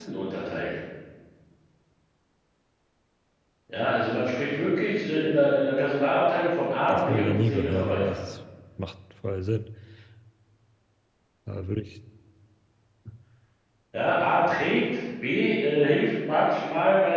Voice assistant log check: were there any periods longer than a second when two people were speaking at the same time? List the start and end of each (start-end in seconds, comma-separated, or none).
6.9-8.2